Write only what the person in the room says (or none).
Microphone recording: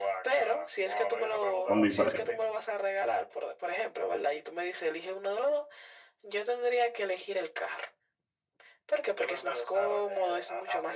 con diferencia.